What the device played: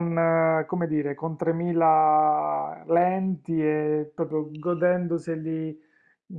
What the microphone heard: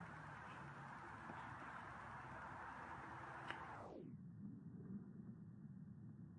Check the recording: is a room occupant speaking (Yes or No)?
No